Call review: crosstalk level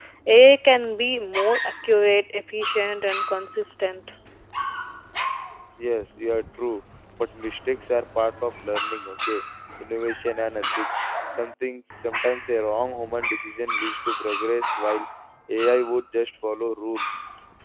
none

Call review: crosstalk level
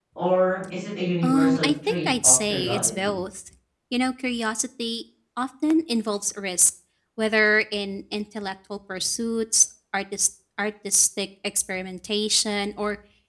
present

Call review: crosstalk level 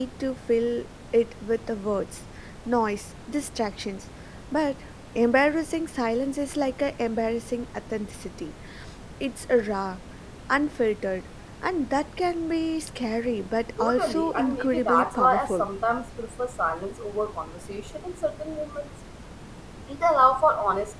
present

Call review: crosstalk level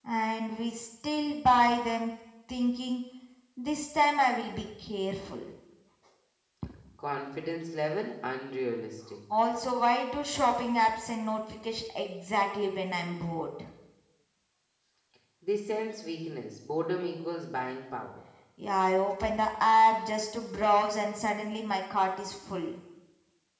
none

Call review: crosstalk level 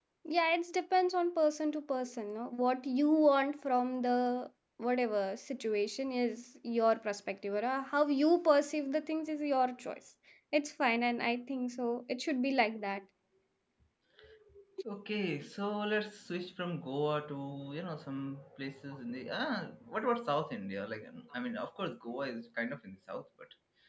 none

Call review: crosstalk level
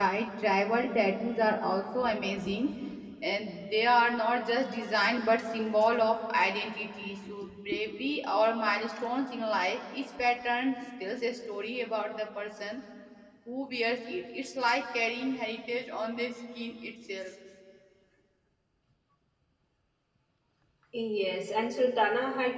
none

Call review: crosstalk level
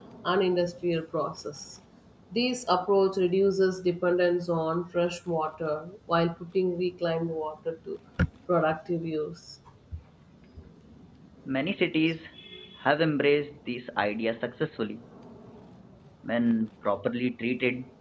none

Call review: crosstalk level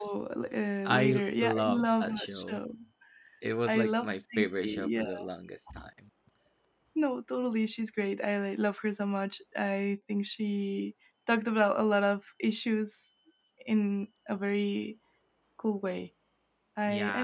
present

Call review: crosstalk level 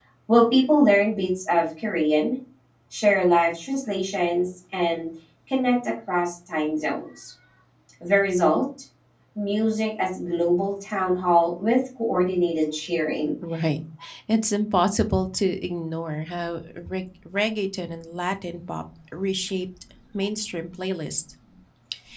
none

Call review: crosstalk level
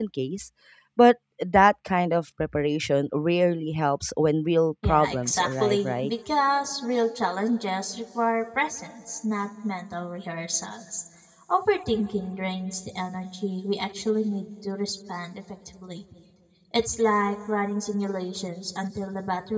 present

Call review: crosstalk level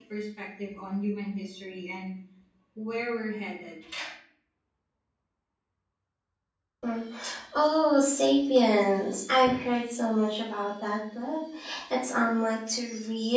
none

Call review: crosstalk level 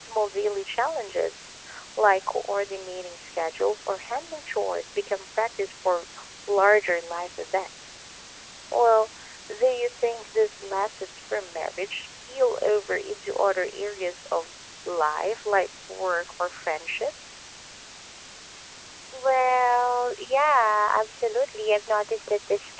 none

